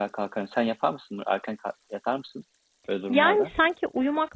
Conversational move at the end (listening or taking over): taking over